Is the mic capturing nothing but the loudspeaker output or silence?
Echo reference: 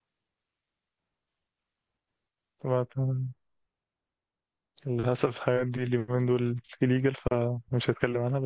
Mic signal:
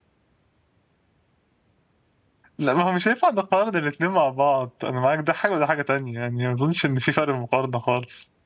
No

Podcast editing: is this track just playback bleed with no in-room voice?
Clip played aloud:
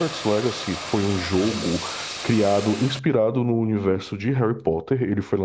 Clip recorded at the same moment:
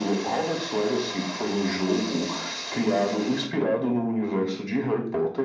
Yes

